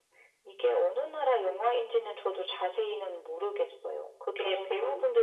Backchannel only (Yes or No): Yes